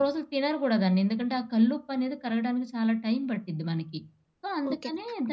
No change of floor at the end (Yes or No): No